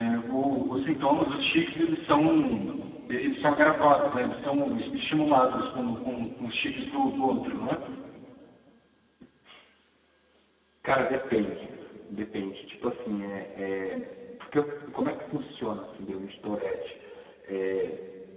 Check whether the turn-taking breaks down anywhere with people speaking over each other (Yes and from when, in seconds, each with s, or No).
No